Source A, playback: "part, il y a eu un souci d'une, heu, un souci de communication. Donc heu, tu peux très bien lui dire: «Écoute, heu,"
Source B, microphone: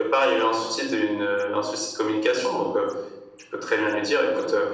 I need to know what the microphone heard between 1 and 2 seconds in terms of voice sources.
echo only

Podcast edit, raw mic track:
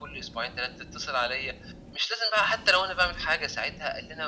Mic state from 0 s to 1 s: echo only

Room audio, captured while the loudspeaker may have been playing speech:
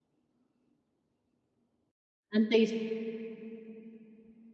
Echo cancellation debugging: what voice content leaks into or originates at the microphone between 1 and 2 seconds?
neither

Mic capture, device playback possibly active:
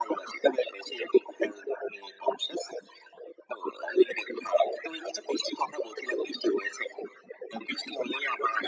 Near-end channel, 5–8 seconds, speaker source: echo only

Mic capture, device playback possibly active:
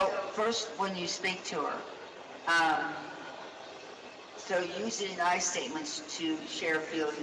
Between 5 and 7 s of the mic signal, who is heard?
echo only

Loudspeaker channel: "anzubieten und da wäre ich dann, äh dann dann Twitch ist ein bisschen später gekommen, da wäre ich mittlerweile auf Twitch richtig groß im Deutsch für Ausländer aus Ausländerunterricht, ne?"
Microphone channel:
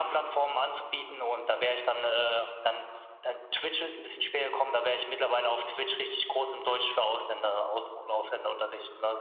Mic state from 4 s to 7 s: echo only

